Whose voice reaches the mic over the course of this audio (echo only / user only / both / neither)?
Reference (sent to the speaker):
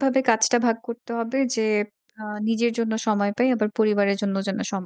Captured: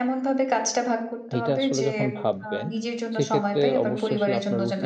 both